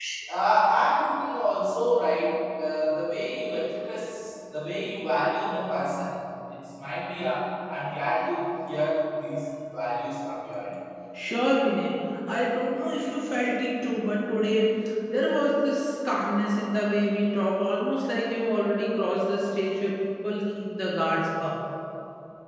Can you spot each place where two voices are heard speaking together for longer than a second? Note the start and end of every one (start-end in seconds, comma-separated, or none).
none